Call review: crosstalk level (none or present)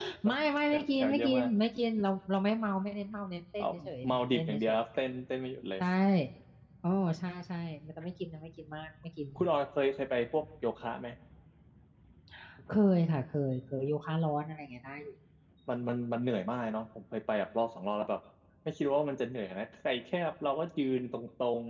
present